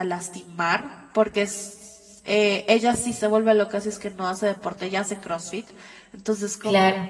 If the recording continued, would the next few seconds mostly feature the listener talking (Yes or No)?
No